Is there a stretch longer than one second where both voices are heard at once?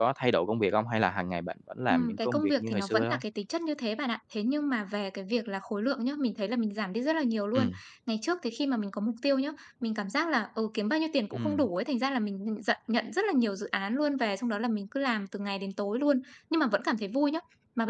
Yes, from 1.9 s

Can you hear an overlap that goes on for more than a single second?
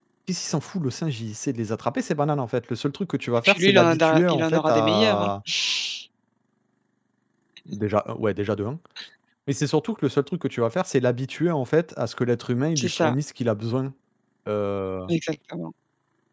Yes, from 3.4 s

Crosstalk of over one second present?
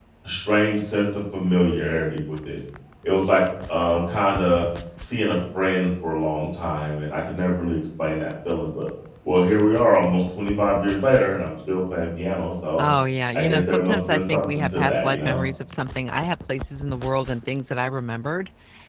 Yes, from 13.3 s

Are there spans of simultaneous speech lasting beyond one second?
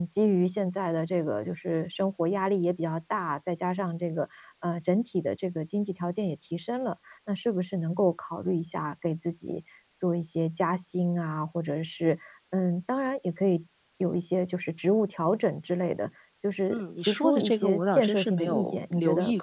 Yes, from 16.7 s

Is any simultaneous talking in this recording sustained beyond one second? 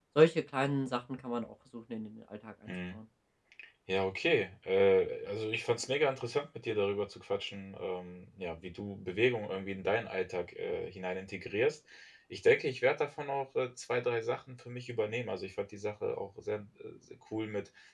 No

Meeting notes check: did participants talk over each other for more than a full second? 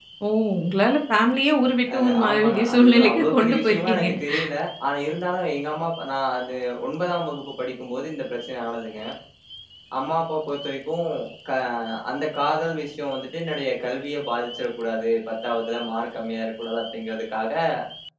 Yes, from 1.9 s

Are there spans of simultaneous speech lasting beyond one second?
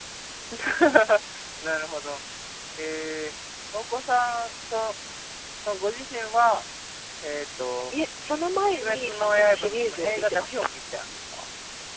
Yes, from 8.8 s

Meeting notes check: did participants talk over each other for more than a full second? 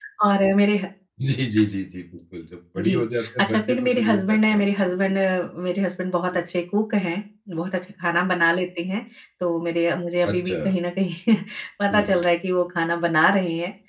Yes, from 2.8 s

